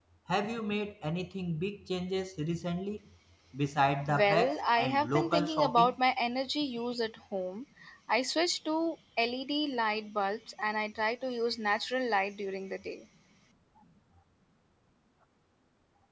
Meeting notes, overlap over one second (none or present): present